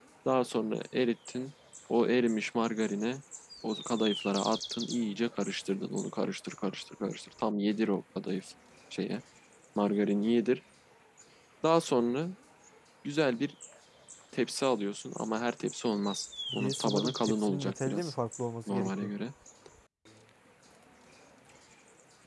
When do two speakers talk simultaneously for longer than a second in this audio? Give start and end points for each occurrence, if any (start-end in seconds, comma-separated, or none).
16.5-18.1